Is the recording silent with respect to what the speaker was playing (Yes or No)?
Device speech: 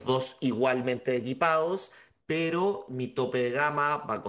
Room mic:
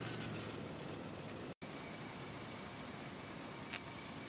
Yes